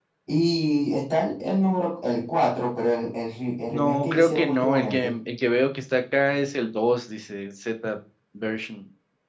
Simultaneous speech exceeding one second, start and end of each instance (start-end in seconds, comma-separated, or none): 3.7-5.1